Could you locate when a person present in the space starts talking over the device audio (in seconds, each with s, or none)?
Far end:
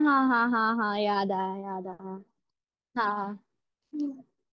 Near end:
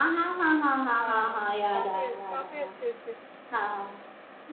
1.0 s